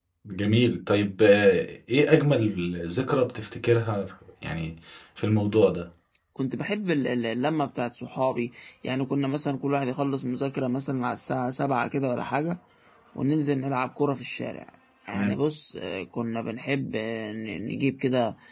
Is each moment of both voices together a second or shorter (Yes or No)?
Yes